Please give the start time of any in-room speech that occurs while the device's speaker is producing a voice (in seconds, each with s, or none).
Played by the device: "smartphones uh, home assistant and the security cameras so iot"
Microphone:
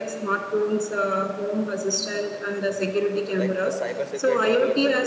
2.6 s